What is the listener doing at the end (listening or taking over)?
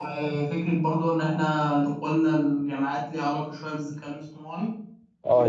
taking over